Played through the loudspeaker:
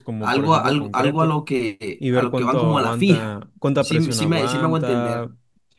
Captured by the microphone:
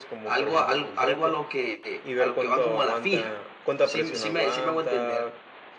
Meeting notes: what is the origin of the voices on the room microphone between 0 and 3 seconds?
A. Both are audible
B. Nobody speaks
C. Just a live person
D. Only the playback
D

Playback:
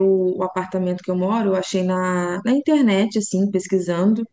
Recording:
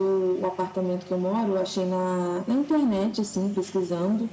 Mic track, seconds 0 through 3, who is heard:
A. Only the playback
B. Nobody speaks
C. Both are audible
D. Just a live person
A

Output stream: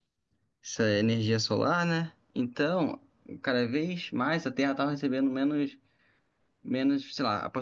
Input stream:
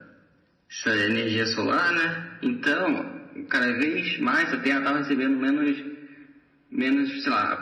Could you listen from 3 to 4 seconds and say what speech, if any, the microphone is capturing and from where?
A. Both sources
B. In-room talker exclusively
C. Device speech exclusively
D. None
C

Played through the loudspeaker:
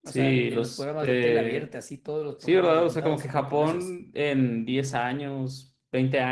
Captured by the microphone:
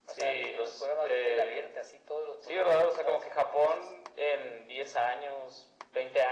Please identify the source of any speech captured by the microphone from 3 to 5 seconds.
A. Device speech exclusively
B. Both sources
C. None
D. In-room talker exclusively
A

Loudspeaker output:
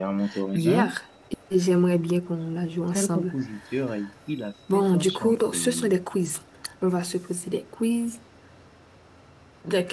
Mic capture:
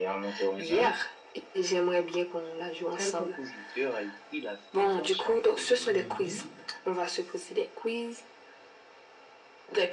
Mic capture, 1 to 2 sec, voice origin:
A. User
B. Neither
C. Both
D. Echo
D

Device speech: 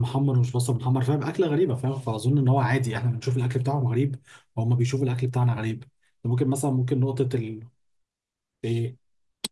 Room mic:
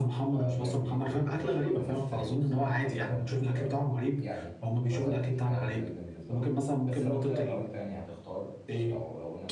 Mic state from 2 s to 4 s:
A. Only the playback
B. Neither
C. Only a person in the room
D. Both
D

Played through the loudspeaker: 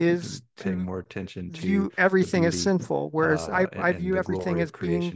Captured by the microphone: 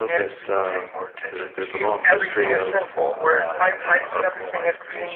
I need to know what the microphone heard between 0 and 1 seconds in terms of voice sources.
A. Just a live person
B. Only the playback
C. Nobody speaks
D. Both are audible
D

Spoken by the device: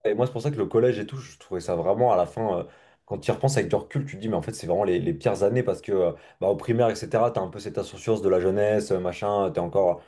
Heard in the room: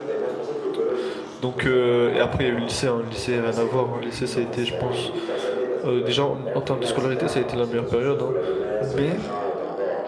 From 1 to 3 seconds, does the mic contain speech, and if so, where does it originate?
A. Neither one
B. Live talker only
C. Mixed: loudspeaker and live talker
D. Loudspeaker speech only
C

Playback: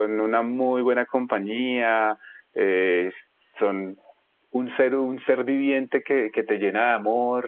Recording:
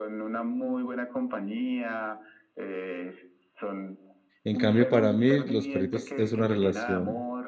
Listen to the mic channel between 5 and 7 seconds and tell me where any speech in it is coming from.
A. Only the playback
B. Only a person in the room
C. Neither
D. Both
D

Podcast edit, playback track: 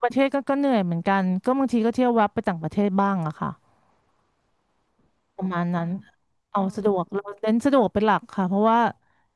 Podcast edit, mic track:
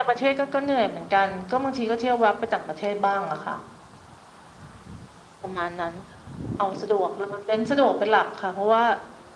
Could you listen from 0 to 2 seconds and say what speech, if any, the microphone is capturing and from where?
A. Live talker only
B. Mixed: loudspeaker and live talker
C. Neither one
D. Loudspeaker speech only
D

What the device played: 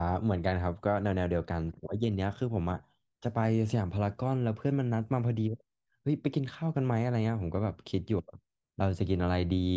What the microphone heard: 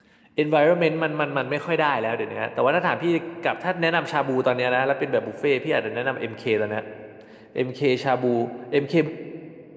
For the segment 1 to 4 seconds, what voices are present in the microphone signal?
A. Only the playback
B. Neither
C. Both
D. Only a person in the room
D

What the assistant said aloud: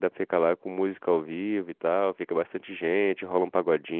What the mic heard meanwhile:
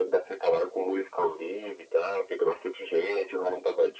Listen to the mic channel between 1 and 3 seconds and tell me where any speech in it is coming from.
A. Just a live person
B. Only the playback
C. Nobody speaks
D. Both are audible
B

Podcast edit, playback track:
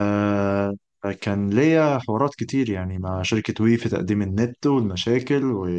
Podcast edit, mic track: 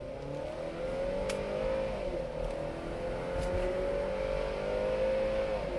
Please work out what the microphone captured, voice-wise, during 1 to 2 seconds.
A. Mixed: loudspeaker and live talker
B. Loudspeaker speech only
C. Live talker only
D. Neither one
D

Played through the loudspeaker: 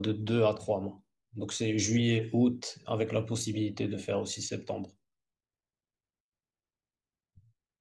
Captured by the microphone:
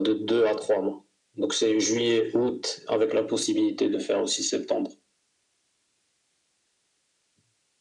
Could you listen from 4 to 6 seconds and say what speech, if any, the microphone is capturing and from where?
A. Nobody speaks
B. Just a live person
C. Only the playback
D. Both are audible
C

